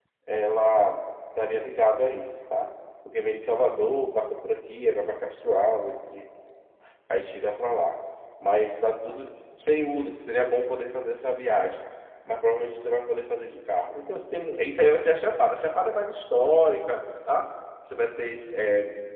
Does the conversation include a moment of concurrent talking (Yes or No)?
No